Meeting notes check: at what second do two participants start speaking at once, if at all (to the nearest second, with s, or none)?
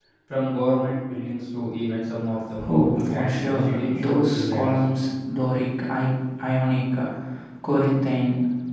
3 s